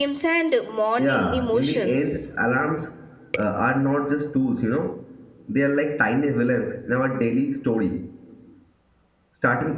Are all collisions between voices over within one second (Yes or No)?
No